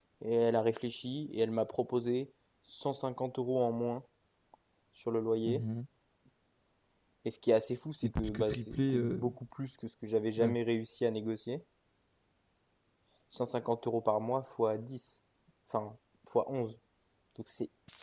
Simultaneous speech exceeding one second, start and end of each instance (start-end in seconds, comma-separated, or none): 8.0-9.2